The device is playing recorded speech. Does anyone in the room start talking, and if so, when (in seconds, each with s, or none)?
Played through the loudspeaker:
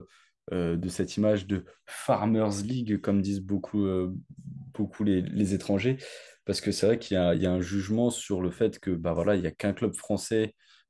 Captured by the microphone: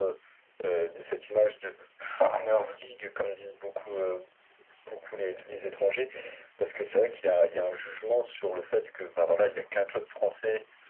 none